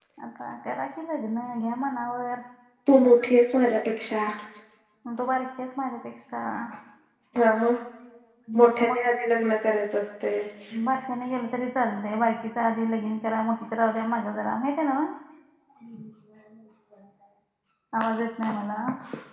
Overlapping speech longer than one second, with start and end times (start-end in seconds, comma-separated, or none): none